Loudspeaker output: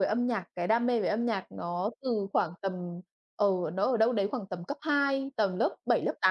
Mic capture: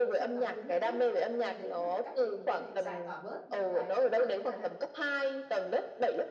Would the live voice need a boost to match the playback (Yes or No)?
Yes